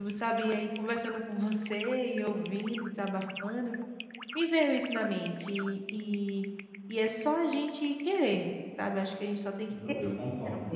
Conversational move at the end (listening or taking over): taking over